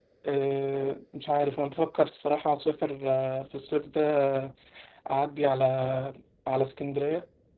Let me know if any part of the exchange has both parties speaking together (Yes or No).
No